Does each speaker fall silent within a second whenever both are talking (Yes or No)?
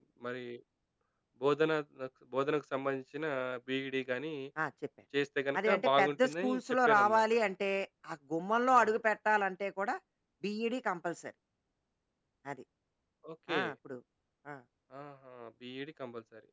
No